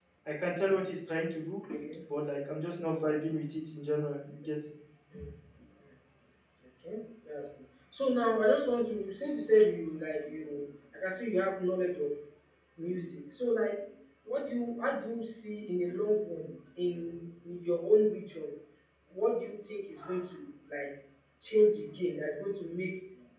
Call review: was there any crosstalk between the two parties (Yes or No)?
No